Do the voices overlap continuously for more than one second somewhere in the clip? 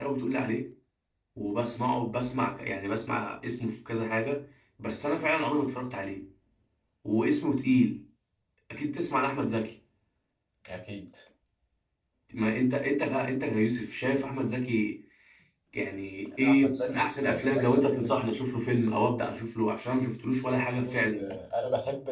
Yes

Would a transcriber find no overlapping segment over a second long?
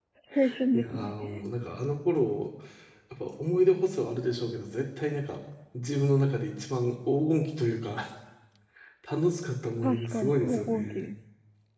No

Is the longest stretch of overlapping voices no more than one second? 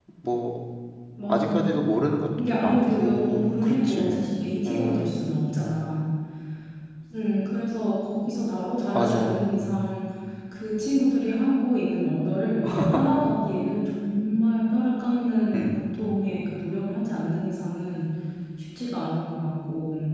No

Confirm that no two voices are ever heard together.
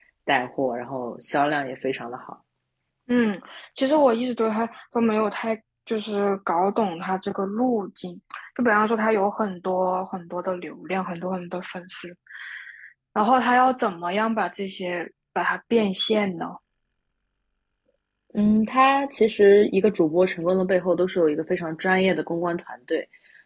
Yes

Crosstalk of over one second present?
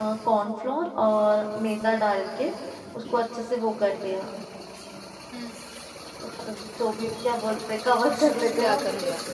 Yes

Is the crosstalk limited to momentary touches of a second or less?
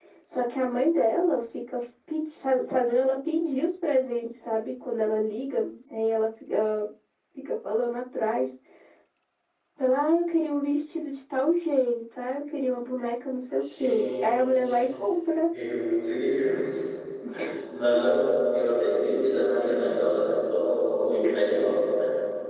No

